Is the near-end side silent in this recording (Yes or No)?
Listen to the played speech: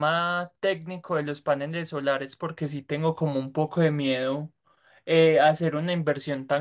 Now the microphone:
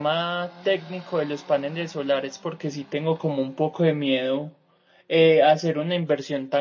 Yes